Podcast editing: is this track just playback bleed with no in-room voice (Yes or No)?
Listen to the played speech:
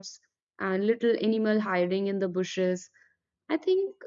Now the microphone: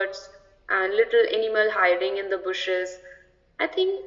Yes